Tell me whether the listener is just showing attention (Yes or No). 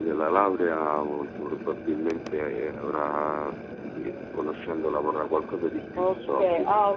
No